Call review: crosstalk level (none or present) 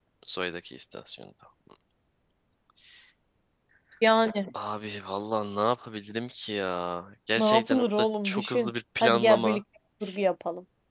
present